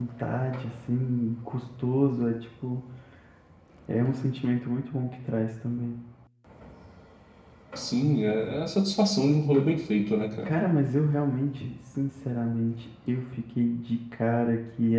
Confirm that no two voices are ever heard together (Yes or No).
Yes